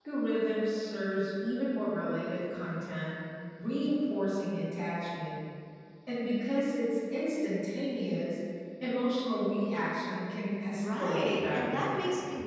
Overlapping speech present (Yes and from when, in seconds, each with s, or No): Yes, from 10.8 s